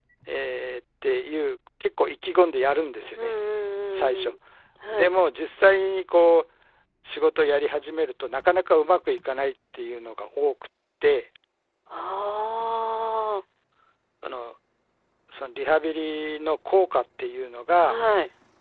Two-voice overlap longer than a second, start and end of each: none

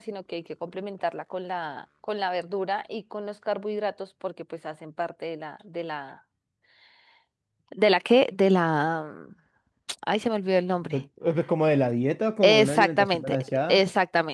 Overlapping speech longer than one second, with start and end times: 12.4-13.8

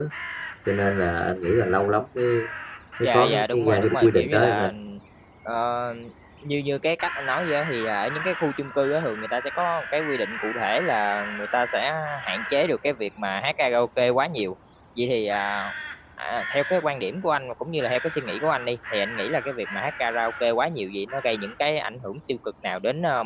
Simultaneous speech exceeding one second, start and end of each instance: 3.0-4.7

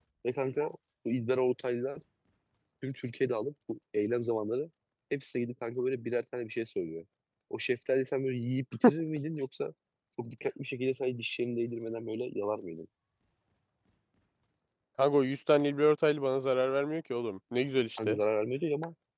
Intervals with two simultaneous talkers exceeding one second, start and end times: none

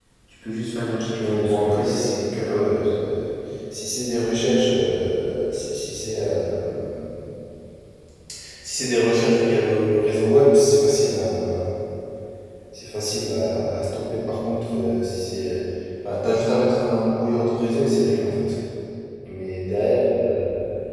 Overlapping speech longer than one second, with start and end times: 1.2-2.9

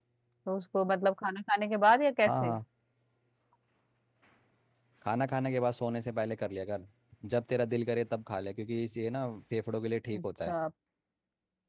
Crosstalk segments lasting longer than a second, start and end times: none

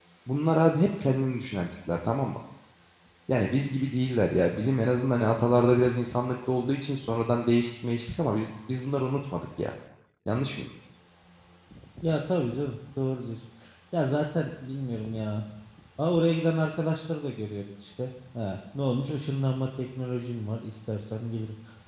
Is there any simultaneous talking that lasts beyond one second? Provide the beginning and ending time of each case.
none

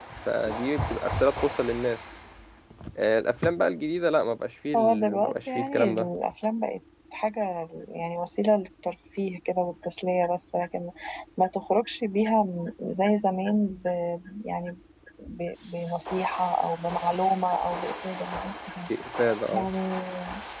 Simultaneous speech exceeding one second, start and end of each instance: 4.8-6.1

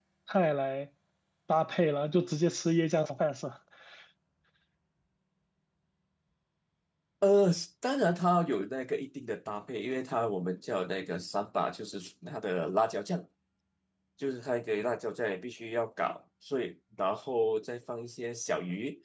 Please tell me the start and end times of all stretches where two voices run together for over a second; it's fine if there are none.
none

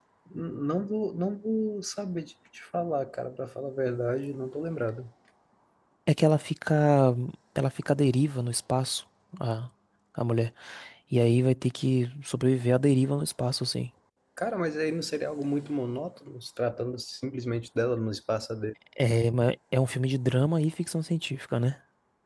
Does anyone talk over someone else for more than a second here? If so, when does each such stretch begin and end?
none

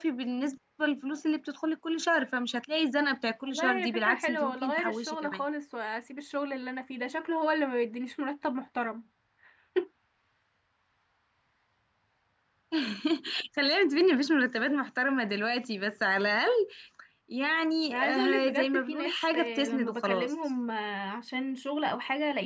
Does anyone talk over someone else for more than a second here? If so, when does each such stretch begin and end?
3.4-5.4, 17.9-20.3

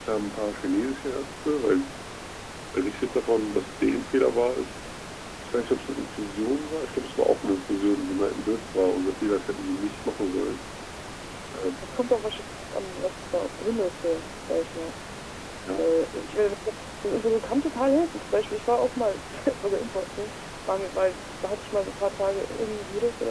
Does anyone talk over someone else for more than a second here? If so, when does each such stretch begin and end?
none

